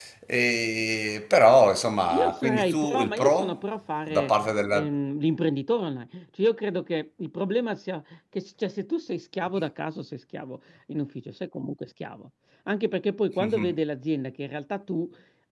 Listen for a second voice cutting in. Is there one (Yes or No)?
Yes